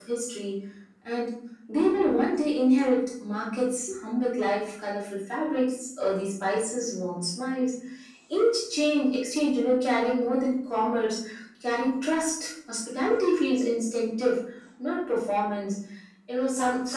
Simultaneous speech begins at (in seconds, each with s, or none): none